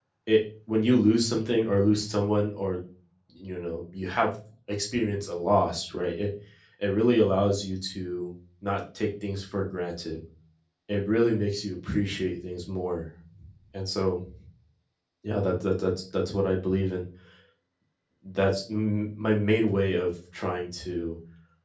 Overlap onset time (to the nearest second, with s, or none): none